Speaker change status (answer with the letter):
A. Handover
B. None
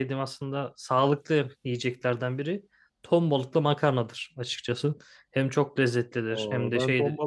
A